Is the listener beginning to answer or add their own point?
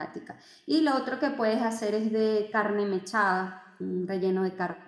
No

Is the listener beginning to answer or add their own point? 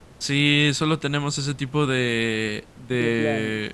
No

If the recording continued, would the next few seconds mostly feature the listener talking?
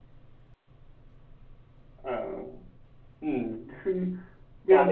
Yes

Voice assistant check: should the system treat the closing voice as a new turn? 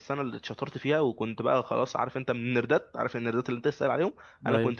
No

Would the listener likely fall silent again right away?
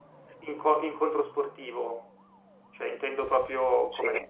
No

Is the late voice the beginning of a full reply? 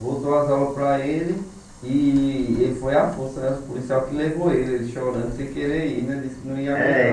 Yes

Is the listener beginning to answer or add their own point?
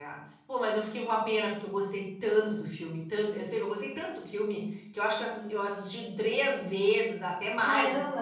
No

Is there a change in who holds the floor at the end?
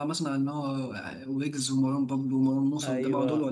Yes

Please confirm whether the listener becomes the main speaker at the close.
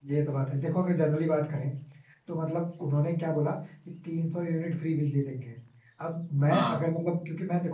No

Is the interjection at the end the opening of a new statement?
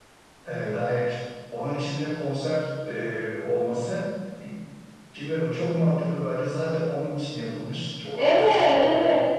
Yes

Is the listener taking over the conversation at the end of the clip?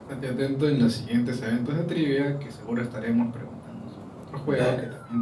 Yes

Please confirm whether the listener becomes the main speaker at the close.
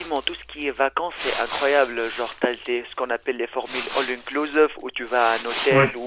No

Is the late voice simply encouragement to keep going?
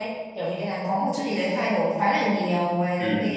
Yes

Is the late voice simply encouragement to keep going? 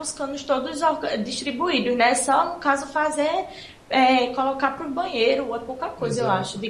No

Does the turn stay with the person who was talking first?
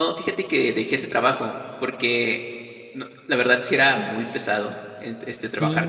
Yes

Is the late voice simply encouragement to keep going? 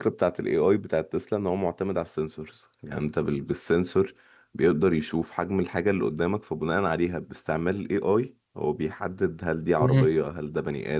Yes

